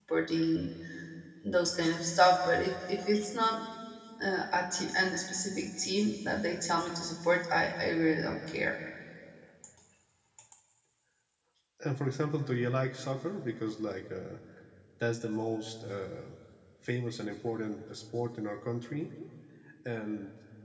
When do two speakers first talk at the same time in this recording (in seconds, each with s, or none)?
none